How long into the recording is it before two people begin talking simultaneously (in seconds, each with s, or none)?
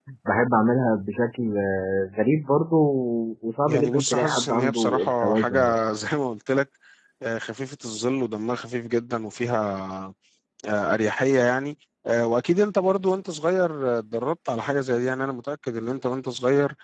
3.7 s